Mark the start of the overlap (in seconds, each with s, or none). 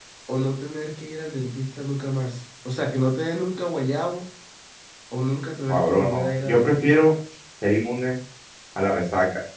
5.7 s